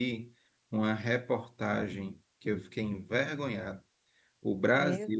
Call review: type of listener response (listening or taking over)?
listening